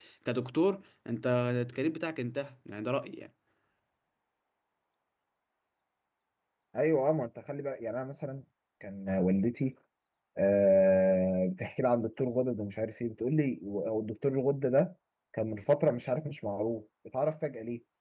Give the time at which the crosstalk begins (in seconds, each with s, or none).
none